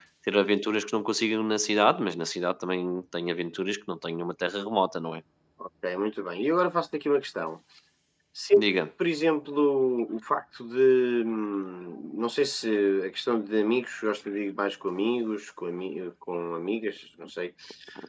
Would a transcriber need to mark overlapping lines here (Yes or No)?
No